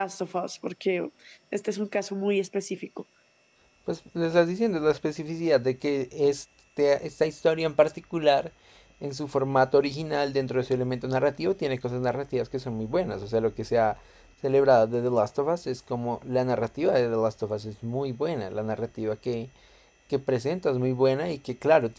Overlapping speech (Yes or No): No